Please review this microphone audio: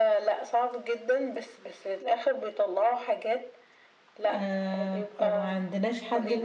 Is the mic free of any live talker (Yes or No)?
No